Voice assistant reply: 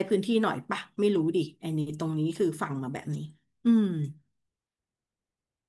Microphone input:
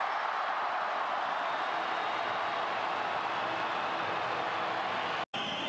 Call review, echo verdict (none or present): none